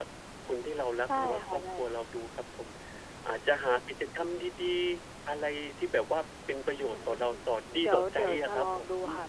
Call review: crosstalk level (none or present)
present